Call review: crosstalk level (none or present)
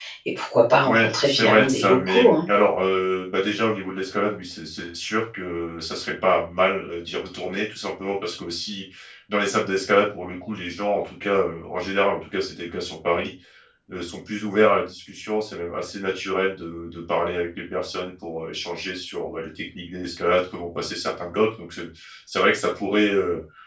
present